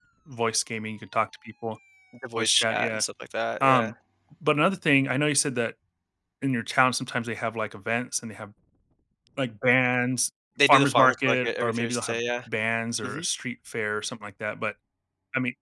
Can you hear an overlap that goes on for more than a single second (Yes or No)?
Yes